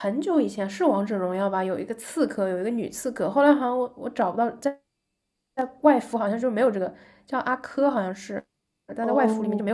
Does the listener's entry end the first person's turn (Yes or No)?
Yes